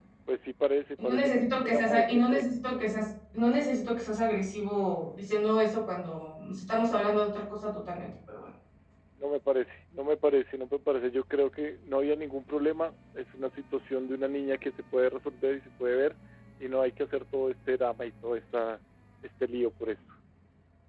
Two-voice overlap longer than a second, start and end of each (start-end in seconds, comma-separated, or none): 1.0-2.5